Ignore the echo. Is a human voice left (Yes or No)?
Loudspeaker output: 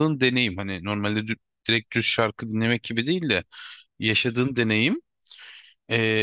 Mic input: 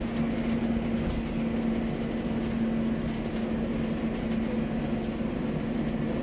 No